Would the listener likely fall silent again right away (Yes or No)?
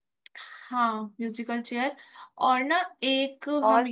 Yes